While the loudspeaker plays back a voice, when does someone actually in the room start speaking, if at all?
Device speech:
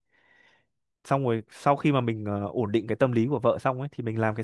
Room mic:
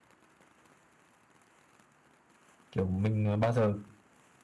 3 s

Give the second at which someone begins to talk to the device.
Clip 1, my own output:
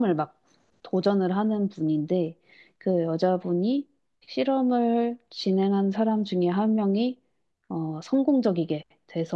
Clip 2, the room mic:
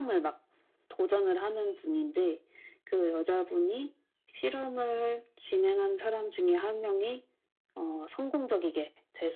none

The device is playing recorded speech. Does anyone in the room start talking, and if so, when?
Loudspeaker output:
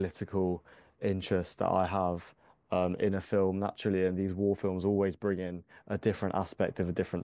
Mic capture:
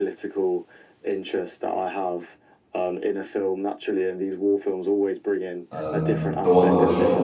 6 s

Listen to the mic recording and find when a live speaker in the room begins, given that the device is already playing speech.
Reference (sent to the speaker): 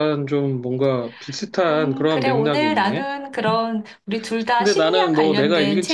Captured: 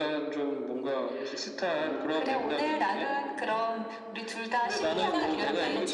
5 s

